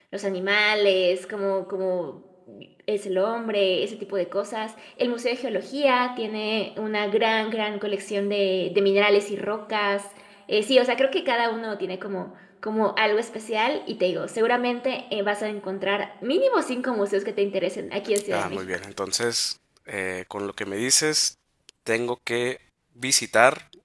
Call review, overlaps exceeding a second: none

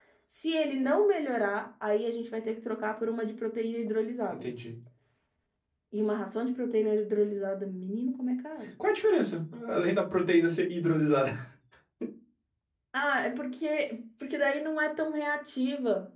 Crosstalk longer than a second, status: none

